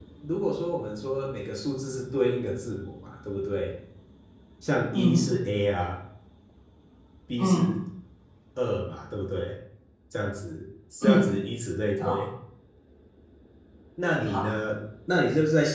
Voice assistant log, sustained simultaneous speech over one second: none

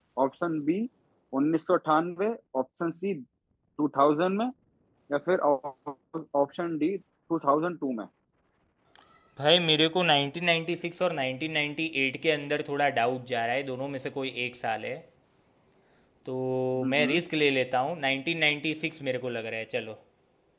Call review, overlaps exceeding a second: none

